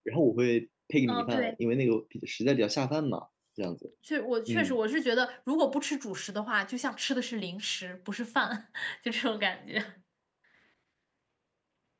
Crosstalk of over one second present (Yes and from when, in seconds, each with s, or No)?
No